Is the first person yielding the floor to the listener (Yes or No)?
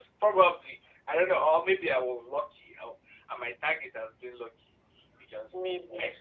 No